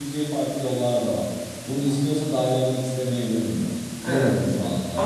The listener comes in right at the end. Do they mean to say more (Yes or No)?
Yes